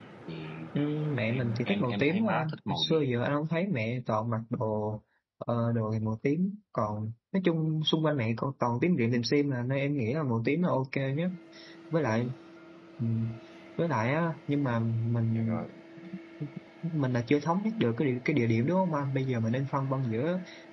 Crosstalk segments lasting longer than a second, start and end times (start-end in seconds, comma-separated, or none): 1.3-3.0